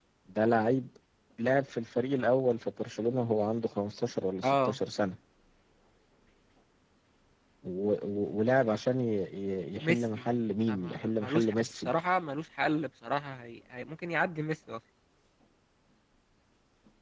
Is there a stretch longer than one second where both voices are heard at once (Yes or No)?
Yes